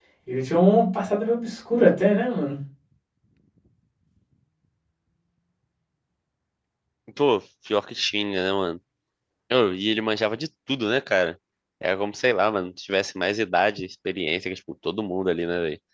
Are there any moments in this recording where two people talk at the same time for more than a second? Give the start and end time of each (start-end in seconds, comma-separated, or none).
none